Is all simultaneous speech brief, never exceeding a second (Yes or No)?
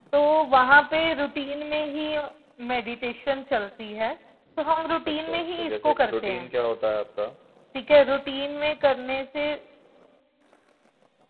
No